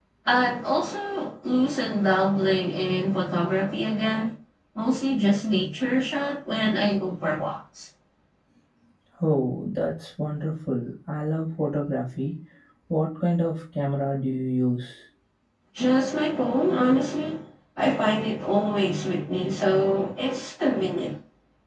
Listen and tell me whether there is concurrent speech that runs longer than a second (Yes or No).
No